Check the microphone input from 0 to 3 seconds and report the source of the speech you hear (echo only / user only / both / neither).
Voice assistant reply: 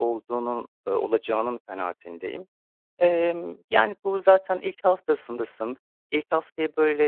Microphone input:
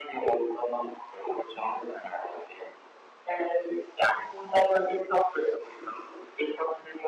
echo only